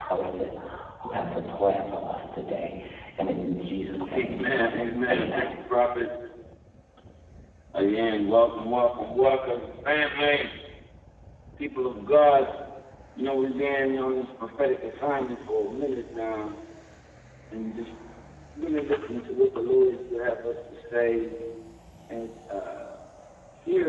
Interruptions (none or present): present